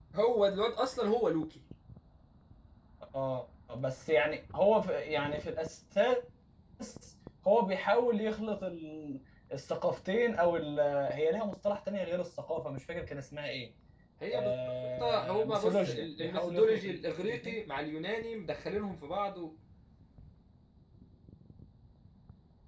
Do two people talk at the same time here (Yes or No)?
Yes